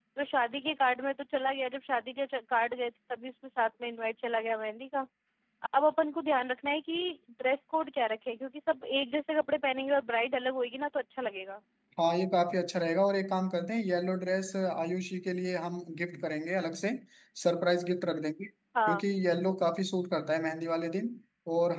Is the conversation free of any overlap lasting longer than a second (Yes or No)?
Yes